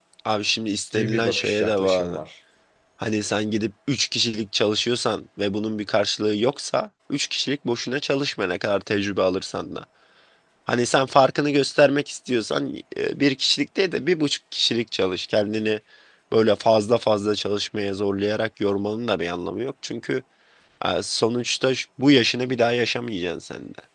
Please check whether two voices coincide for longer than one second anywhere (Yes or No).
Yes